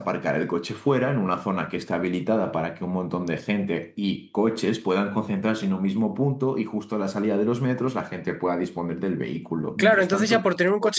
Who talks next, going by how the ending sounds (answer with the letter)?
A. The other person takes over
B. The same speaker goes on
A